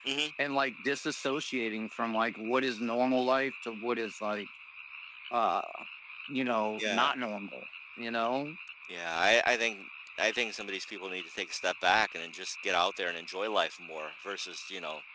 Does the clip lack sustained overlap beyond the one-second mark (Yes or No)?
Yes